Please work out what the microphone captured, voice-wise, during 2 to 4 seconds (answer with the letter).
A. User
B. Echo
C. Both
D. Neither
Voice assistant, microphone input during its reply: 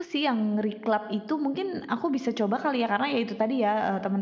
A